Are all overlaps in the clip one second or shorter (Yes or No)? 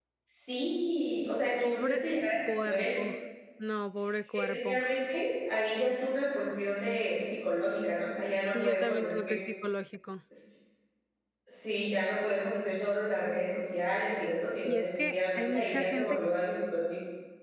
No